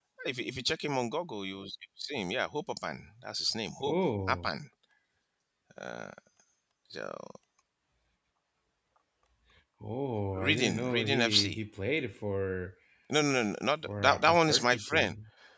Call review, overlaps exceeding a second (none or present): present